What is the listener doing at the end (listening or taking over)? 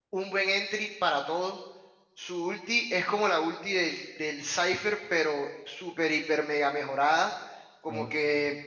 listening